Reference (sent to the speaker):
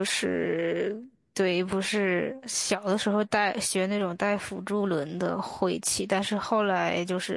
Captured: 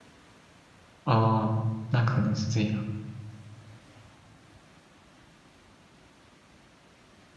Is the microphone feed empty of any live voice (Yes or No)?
No